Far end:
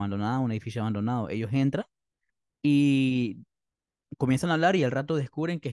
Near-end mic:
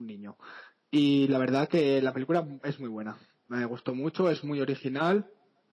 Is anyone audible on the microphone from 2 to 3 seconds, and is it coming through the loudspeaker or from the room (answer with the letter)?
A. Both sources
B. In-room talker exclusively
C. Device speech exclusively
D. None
B